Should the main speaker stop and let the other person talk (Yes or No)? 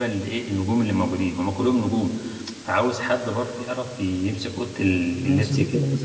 Yes